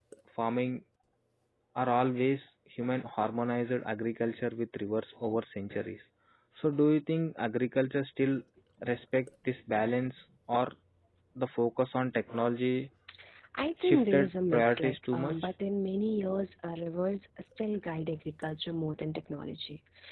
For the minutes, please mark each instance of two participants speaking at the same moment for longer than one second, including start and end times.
13.8-15.3

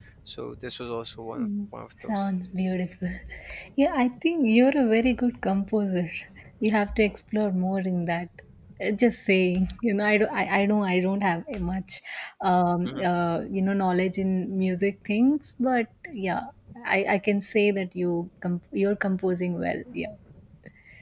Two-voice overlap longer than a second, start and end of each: none

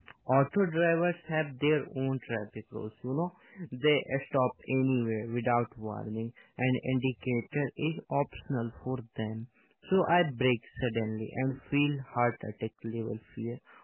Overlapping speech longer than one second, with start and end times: none

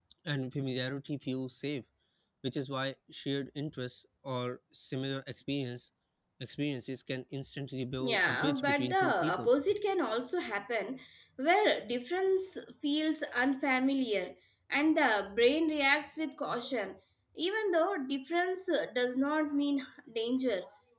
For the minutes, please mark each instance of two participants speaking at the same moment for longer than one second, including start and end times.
8.0-9.5

